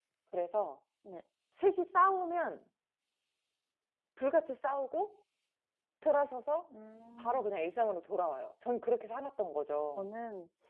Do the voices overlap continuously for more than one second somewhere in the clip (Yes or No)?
No